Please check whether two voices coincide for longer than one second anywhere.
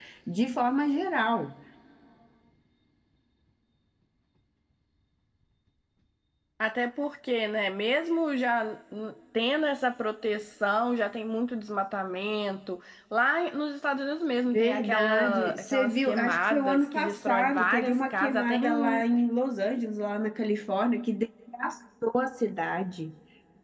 Yes, from 14.5 s

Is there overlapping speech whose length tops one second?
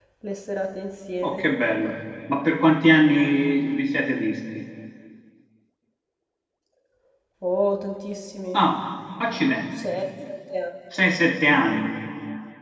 No

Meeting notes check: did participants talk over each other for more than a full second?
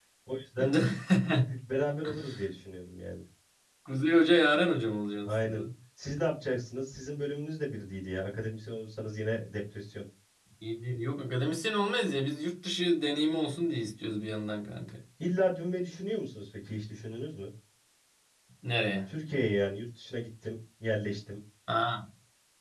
No

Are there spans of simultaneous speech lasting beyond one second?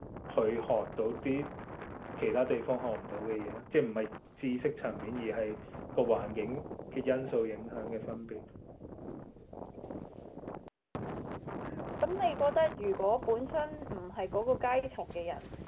No

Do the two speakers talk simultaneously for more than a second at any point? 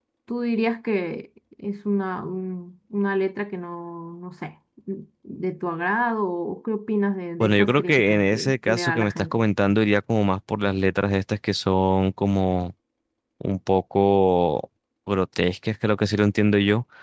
Yes, from 7.4 s

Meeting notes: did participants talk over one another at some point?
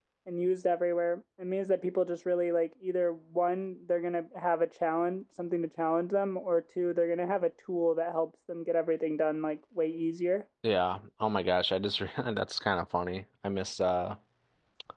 No

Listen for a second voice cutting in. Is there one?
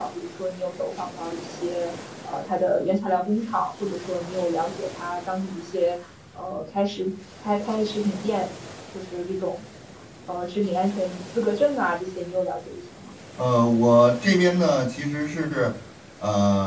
No

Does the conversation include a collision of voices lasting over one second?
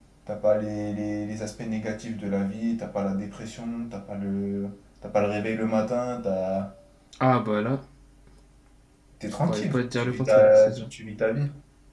Yes, from 9.4 s

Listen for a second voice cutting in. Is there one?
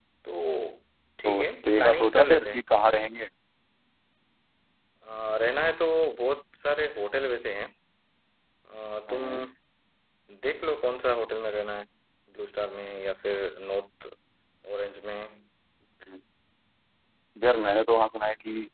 Yes, from 1.2 s

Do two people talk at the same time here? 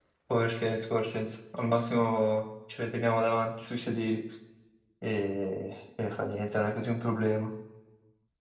No

